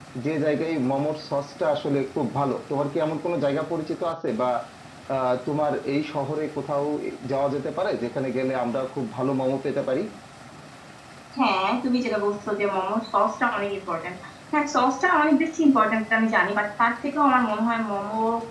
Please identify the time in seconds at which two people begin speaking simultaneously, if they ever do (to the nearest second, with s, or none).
none